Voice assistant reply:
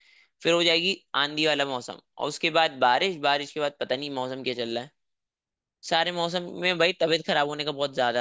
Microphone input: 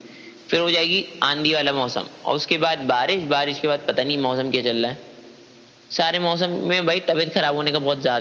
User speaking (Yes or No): No